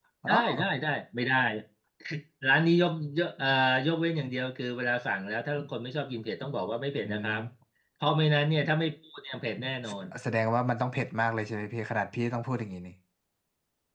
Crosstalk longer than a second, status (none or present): none